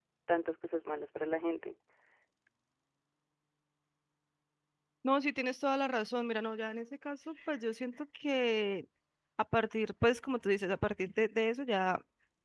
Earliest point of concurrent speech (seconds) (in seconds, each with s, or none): none